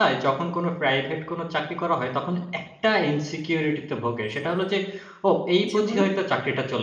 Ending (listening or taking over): listening